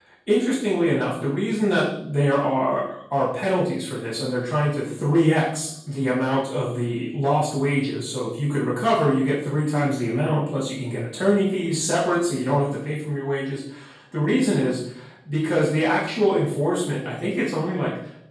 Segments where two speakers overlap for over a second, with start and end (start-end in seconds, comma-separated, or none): none